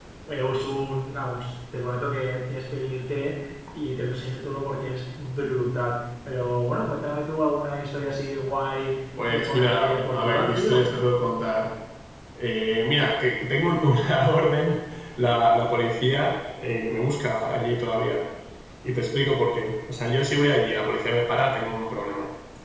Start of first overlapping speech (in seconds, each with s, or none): 9.2 s